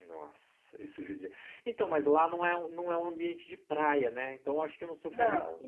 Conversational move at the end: listening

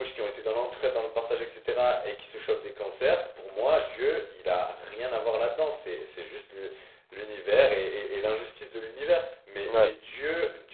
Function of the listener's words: listening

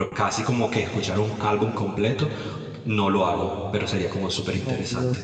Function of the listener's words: taking over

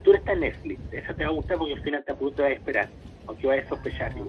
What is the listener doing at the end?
taking over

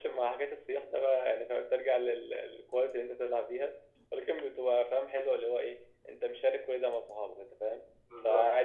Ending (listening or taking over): listening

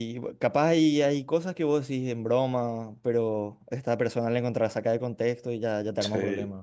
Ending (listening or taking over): taking over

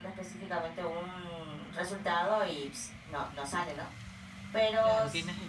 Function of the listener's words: taking over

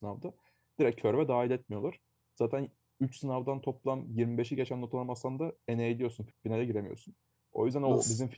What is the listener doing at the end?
listening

